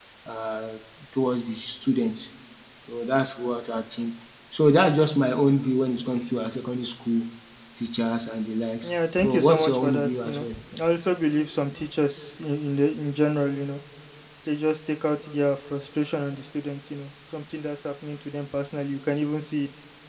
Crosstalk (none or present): present